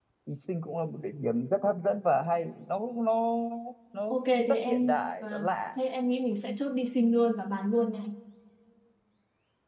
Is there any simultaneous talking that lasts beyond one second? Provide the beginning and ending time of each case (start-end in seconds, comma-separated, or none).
4.1-5.5